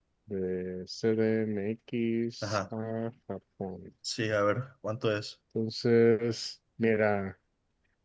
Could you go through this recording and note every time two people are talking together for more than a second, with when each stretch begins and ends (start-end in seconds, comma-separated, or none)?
none